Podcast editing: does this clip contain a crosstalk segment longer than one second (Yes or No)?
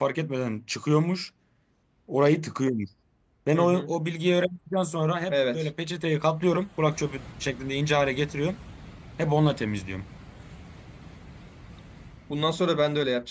No